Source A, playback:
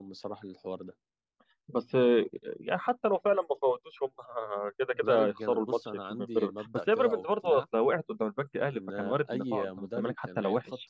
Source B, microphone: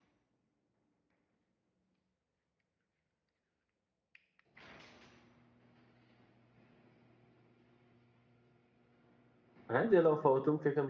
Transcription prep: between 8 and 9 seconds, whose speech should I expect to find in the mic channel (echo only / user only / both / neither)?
neither